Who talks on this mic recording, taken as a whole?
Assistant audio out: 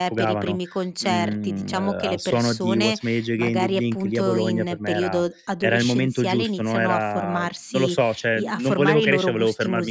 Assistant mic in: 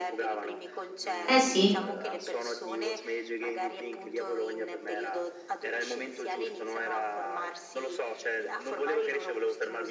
both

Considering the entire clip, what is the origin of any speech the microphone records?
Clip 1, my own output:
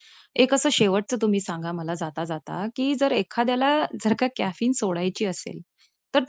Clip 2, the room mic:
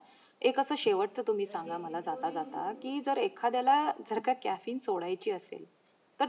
both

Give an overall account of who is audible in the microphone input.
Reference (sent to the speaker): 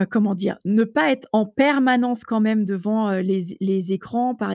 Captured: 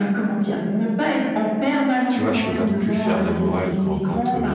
both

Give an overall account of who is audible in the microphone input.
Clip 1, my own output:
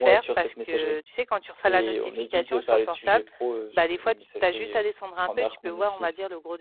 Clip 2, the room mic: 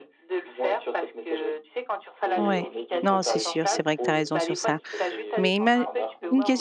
both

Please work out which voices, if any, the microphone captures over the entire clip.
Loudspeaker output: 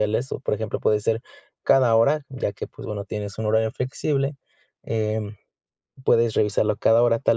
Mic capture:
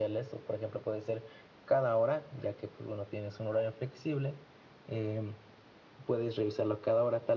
echo only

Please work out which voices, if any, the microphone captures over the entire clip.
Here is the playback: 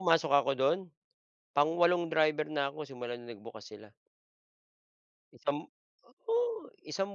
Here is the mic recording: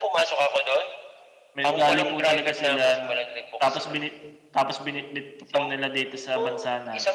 both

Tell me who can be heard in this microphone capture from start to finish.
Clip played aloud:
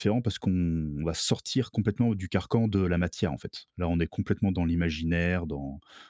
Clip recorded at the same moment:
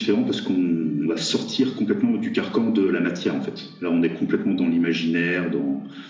echo only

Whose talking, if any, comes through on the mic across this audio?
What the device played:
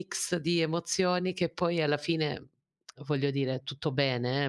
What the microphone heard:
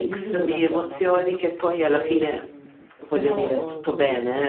both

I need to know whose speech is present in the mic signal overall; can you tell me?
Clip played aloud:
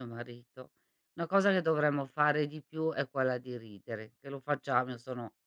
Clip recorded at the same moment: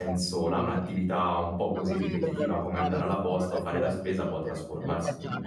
both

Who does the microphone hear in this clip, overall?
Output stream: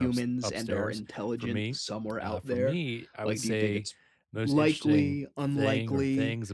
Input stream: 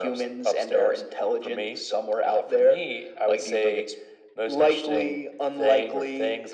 echo only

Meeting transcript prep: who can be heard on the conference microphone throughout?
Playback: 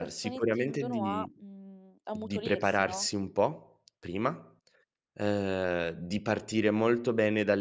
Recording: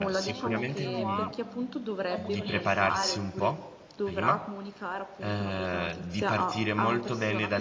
both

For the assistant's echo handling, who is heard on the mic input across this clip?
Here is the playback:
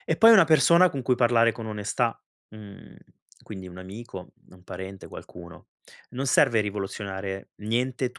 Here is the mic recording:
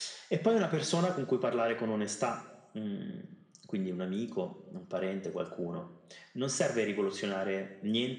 echo only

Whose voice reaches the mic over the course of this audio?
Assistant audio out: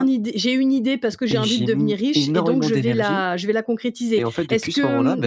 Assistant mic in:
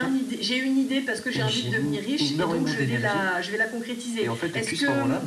echo only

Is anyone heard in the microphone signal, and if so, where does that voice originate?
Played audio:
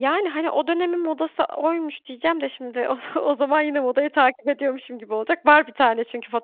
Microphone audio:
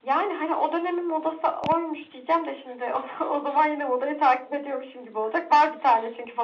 echo only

